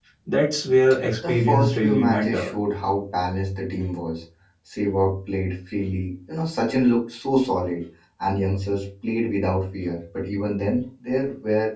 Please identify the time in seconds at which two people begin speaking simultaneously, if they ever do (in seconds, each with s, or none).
1.3 s